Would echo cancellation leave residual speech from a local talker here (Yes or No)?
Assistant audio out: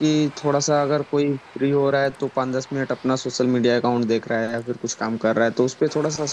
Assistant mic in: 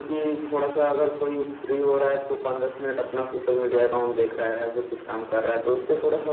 No